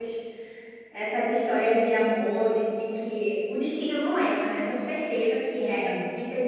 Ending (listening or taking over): listening